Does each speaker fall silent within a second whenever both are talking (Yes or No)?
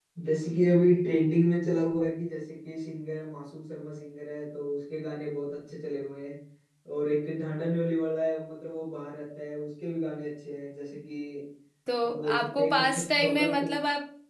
No